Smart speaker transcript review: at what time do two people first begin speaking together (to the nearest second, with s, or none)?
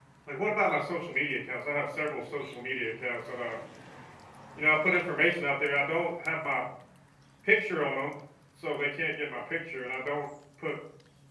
none